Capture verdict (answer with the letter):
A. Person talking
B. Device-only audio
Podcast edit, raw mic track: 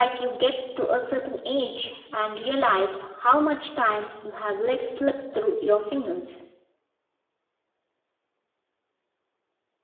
B